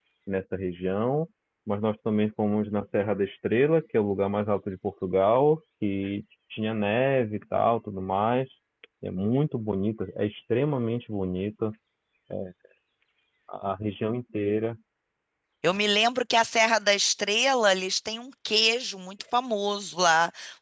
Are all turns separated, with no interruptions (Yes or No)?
Yes